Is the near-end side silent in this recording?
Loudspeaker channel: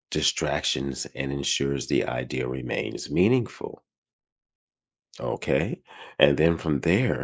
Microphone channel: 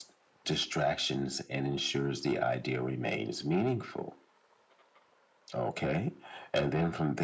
Yes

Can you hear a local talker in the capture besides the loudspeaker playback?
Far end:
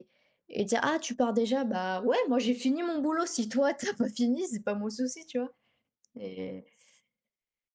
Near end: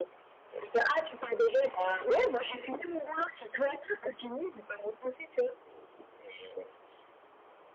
No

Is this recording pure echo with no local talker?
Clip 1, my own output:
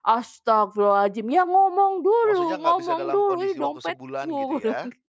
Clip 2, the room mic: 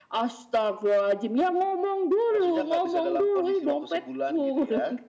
Yes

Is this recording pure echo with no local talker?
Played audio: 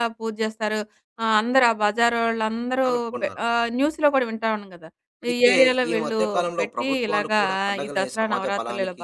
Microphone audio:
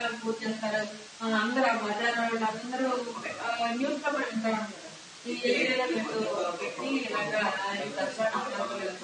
Yes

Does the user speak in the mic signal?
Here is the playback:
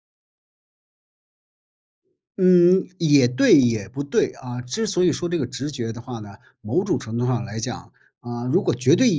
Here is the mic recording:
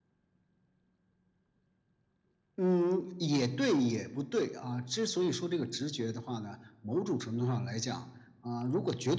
No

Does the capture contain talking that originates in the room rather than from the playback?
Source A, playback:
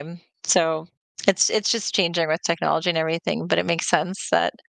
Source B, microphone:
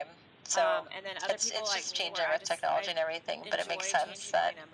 Yes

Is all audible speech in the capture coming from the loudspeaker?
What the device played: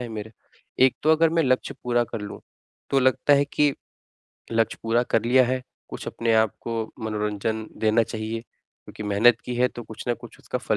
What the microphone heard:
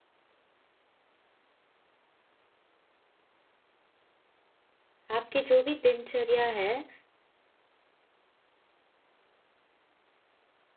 No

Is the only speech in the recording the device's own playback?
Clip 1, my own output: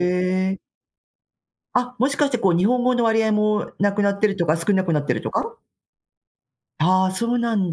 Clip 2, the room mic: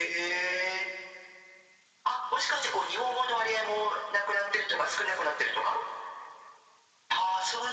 Yes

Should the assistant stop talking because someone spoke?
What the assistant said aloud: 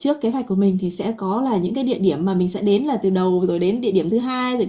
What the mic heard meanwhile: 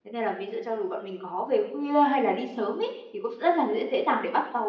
Yes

